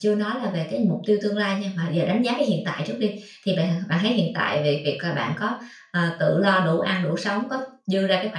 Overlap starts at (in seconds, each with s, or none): none